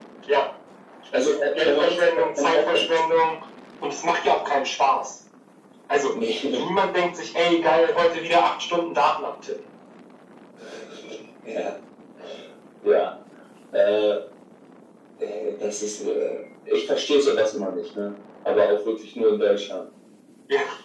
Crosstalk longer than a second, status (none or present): present